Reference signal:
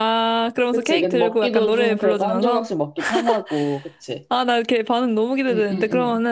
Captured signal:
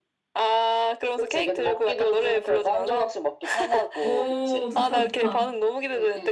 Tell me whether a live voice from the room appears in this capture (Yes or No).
Yes